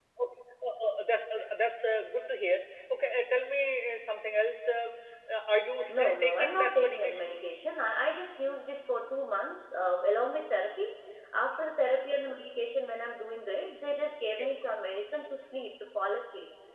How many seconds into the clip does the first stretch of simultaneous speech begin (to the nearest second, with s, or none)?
6 s